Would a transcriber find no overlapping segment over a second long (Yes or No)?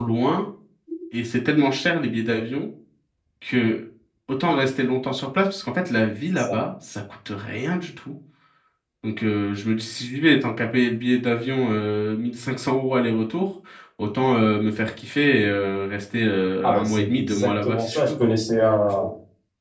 No